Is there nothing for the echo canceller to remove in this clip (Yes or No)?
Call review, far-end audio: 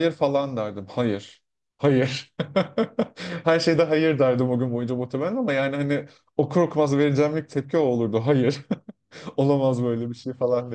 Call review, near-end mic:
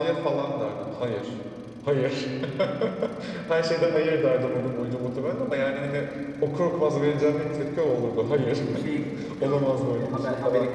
No